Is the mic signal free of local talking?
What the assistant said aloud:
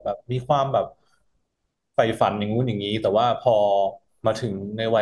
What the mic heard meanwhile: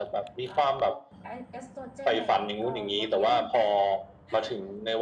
No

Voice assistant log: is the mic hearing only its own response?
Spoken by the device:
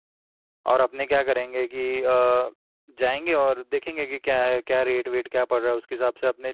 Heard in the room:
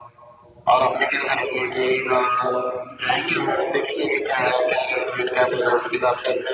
Yes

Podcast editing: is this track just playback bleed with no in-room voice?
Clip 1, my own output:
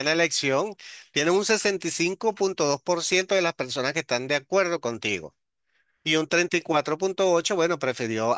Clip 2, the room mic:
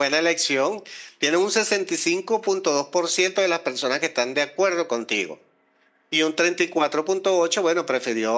Yes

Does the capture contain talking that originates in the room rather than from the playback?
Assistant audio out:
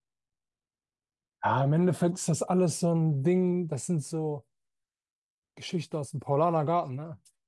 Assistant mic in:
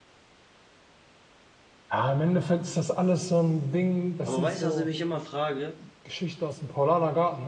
Yes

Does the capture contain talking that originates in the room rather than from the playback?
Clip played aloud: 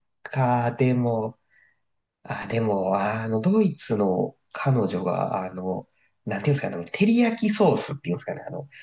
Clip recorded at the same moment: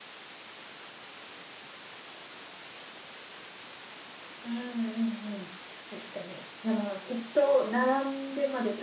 Yes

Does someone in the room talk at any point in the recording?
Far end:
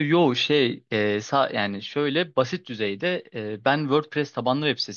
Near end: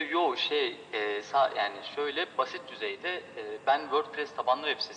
No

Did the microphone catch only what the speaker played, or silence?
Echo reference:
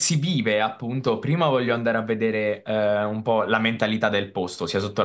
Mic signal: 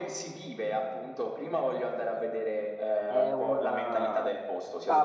No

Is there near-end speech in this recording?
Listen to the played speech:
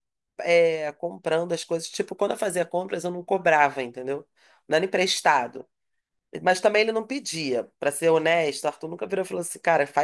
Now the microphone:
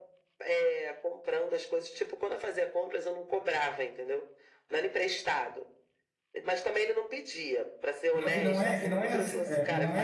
Yes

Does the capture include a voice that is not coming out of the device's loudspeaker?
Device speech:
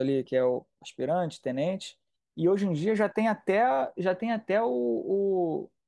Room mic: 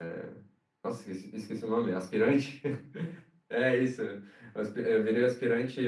Yes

